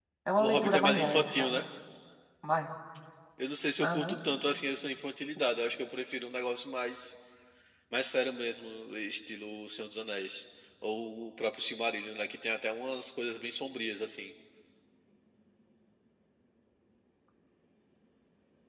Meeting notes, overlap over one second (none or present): present